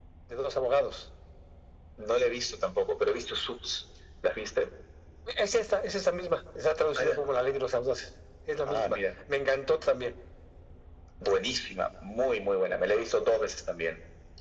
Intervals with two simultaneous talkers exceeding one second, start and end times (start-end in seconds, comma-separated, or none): none